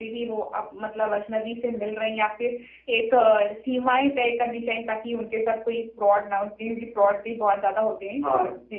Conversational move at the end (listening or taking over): taking over